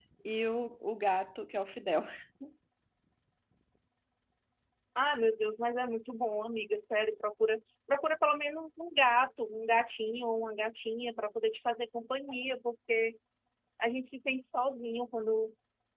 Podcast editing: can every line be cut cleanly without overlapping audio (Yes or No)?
Yes